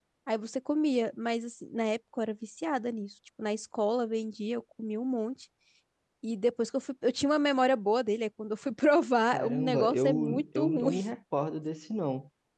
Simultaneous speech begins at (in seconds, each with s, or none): 9.3 s